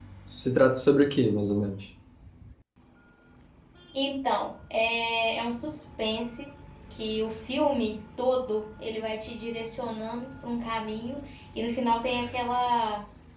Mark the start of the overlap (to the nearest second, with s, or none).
none